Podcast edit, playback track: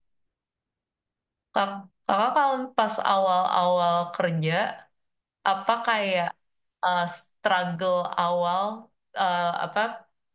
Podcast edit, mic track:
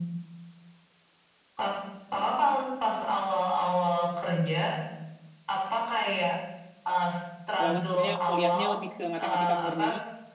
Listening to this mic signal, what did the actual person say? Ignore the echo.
Kalau aku sebenarnya kuliahnya lebih ke matematika murni.

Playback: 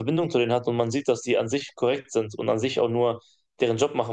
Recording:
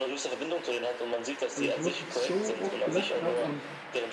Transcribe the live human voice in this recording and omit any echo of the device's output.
weil ich wirklich so oft gelacht habe und

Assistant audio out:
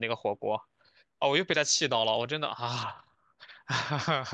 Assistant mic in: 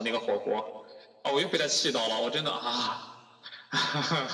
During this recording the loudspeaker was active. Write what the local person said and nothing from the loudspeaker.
none

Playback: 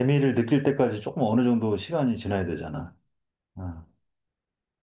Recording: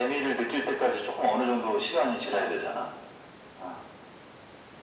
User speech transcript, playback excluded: none

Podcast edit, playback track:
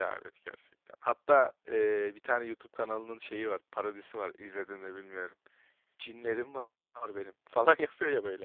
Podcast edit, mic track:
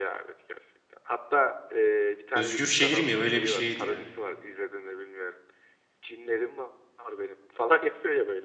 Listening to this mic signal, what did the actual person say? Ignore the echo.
Özgür şehir mi? Öyle bir şeydi ya.

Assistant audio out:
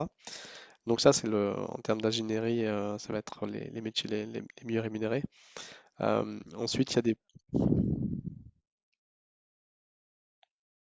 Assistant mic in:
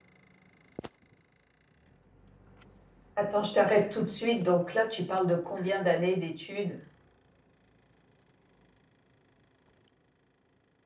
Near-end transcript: Attends, je t'arrête tout de suite. Donc là, tu parles de combien d'années d'études?

